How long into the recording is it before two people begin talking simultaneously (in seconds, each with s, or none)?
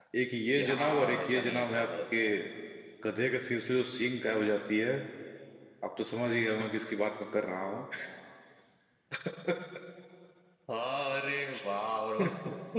0.6 s